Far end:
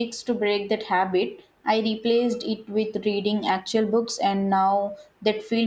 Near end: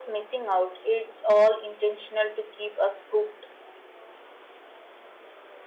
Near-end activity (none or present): present